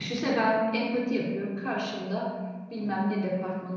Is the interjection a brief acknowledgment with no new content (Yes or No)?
Yes